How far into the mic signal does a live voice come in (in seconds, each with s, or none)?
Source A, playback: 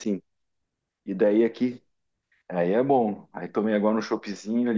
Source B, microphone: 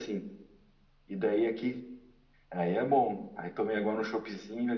none